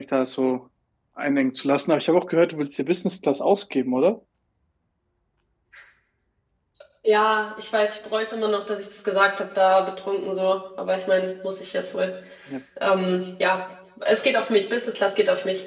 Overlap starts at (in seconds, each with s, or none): none